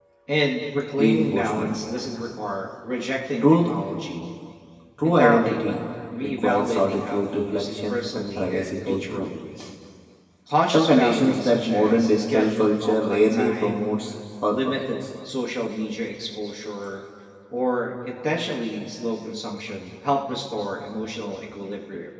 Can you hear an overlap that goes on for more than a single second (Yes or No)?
Yes